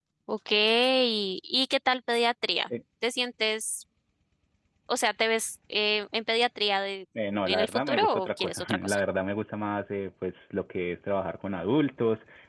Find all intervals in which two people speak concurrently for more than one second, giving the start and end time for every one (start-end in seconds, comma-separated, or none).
7.5-9.0